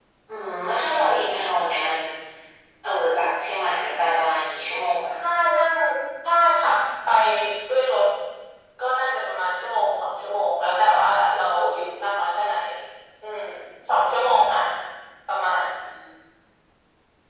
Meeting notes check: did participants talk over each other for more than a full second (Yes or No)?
No